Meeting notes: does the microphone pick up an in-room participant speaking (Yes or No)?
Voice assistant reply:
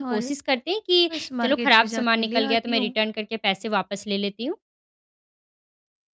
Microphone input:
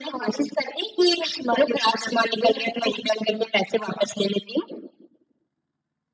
No